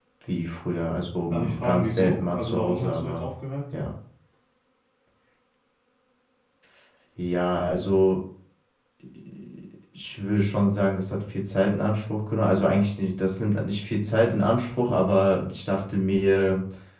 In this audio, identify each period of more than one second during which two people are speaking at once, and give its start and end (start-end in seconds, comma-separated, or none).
1.3-3.3